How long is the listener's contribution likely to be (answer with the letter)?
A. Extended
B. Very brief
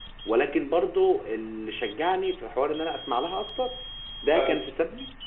B